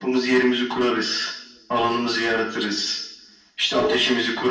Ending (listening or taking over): listening